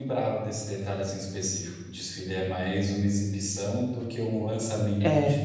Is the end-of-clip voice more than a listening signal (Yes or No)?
No